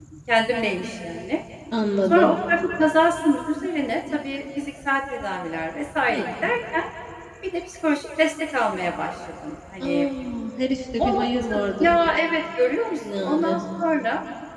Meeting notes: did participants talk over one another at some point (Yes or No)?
Yes